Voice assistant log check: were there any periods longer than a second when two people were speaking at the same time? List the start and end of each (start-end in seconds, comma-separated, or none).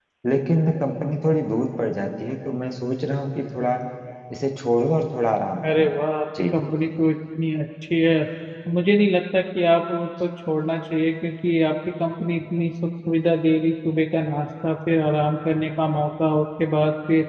none